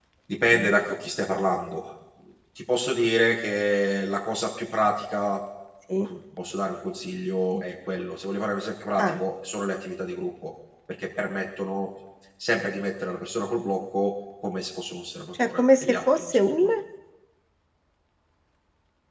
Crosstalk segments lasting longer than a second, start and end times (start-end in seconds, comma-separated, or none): 15.3-16.6